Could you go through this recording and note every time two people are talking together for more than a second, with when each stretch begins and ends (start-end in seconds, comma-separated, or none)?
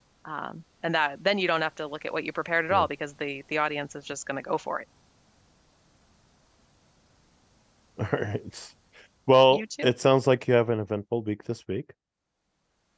none